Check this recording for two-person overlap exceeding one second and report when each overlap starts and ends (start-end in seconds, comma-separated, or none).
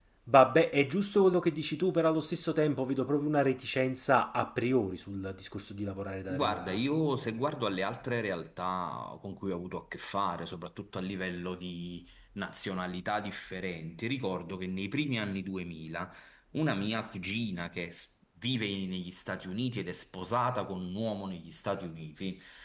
none